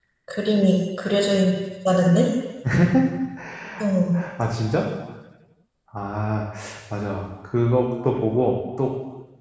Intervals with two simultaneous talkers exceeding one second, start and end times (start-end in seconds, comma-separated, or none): none